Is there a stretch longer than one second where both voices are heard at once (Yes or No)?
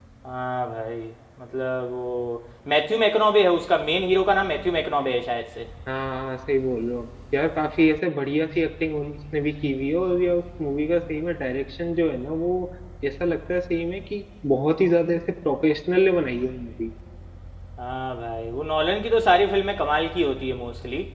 No